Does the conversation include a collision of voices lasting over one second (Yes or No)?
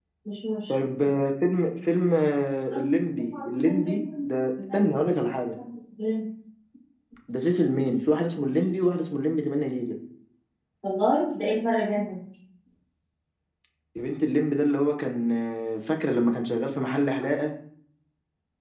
No